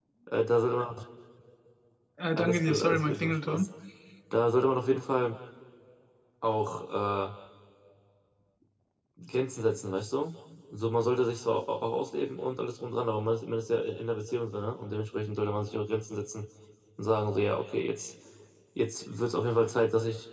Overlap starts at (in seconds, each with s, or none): 2.4 s